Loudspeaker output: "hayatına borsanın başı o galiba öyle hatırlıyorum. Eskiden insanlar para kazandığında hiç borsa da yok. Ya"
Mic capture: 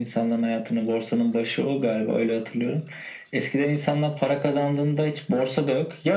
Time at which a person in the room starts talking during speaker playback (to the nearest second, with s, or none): none